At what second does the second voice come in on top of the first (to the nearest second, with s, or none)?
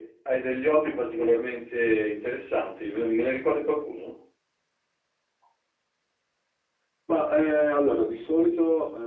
none